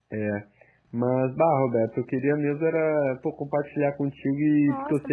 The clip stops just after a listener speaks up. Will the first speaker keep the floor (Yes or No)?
No